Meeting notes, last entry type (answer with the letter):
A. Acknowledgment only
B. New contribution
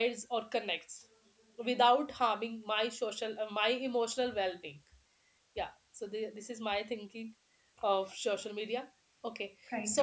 A